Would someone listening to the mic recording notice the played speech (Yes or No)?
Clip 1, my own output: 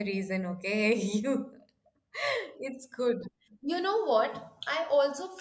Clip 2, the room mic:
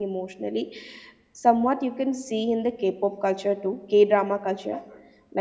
No